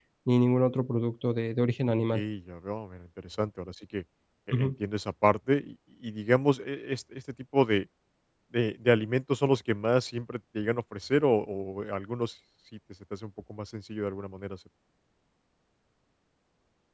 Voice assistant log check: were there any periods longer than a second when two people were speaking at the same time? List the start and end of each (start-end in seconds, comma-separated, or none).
none